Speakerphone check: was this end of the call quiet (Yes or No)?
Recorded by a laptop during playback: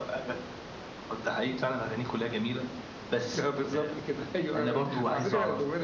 Yes